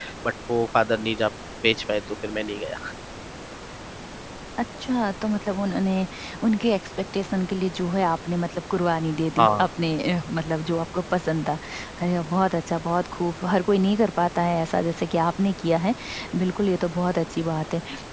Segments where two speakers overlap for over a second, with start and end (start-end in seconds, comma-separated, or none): none